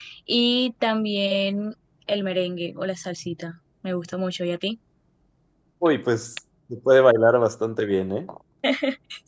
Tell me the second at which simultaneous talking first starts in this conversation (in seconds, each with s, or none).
none